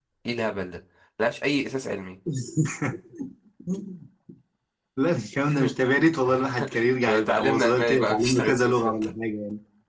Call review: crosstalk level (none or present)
present